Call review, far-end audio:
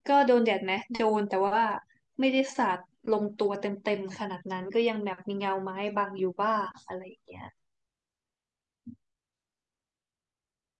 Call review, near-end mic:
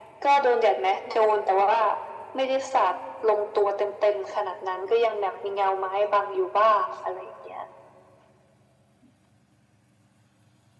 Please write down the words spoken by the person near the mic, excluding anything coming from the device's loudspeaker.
none

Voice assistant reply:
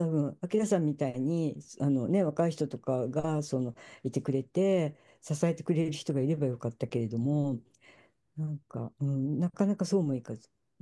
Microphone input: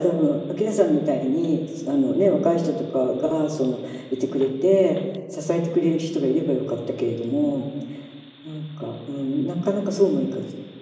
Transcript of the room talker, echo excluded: none

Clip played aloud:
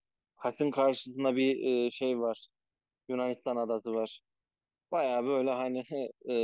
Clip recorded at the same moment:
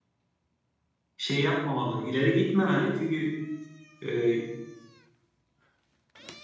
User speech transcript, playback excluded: şey yapmamalı, ileri gitmemeli çünkü e,

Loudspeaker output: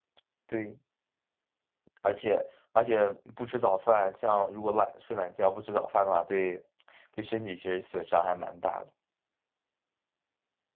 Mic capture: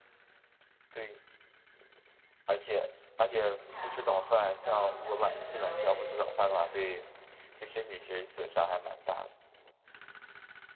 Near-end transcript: 不太好，然后再再怎么样我也得起来。

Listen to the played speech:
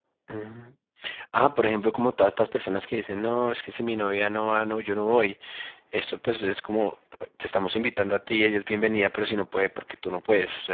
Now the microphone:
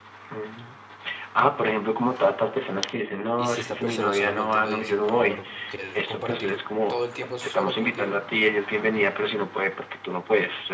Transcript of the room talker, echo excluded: y si esta persona solamente lo dice como por querer compartir todo el tiempo solo contigo

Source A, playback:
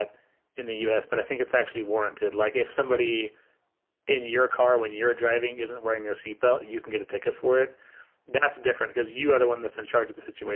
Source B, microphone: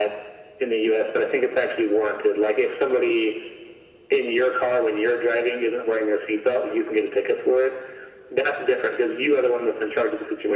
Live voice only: none

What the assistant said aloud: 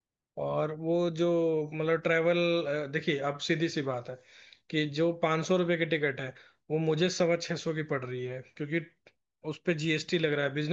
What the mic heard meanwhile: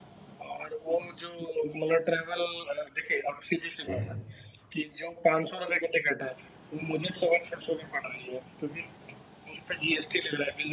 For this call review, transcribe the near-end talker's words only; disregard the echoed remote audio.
ये है

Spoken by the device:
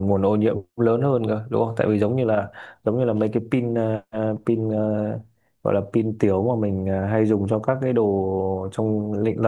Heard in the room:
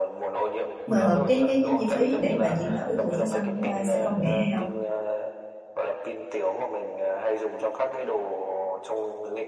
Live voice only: Ờ, cái cái cái chi phí để mà chuyển đổi từ xe xăng qua xe công nghệ hay không

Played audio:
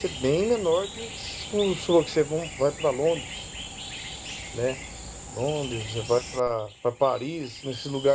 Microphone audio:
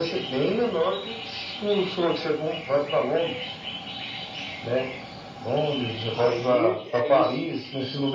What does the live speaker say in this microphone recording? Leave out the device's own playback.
Aí é isso,

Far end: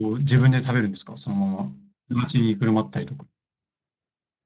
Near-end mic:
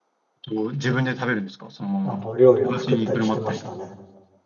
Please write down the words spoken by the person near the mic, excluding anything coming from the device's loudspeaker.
あの、料理を作ったりしてましたね。

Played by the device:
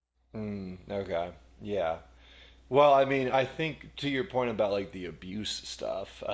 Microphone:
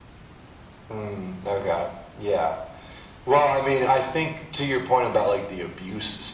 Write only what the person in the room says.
none

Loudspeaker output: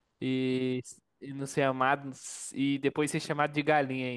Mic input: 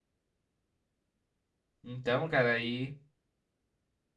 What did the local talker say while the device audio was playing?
Então, cara, aí.

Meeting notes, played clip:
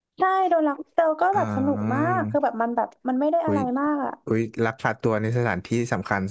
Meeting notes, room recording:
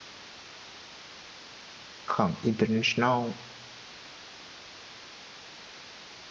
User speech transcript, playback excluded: ของ international

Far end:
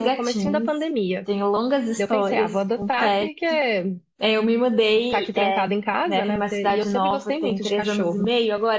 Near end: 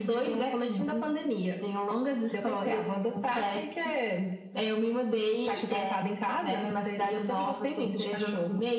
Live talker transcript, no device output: none

